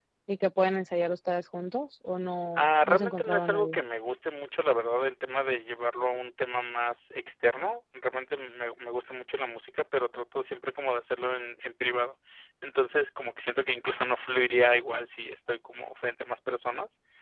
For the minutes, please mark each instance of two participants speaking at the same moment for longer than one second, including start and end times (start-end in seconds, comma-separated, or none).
2.6-3.8